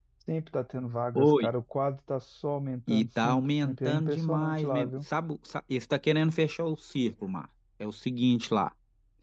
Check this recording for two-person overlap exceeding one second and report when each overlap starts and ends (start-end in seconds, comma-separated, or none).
2.9-4.9